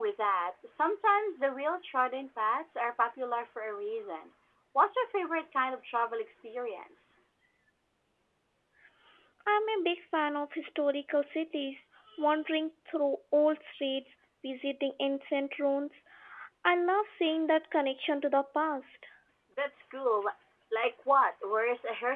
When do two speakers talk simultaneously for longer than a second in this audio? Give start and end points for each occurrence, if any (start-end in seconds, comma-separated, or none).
none